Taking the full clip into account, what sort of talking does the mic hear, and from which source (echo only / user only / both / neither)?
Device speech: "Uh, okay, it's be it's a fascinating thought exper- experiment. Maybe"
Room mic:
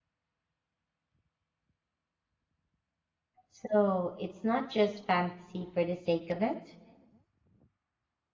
user only